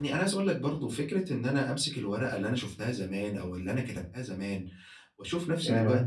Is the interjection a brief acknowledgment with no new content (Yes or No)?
Yes